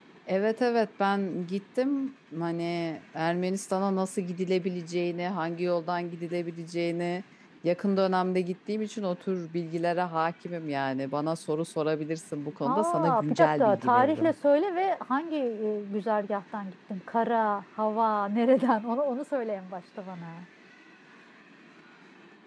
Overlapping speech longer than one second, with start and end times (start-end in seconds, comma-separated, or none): 12.6-14.3